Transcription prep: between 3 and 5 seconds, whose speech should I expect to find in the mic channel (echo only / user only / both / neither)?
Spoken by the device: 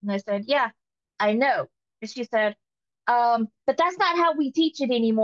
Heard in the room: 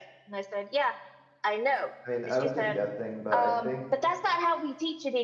both